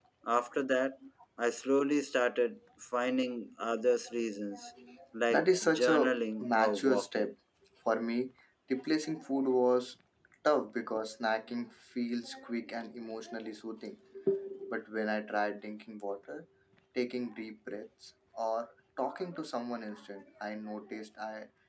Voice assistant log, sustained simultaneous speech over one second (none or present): present